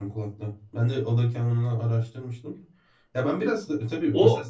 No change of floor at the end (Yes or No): Yes